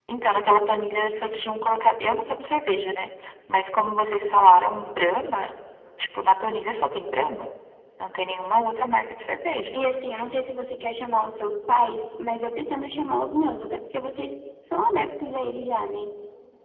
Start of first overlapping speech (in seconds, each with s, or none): none